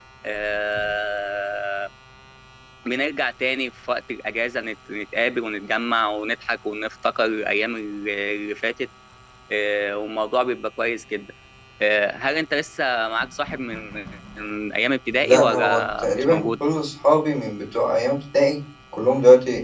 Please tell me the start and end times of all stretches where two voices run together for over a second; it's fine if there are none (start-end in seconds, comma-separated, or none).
15.2-16.5